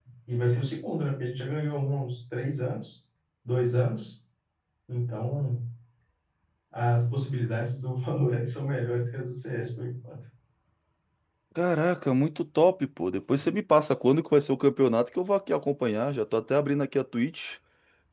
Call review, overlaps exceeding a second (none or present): none